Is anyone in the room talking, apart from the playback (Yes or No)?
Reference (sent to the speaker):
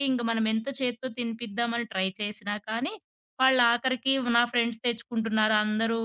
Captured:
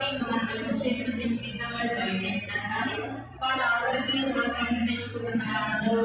No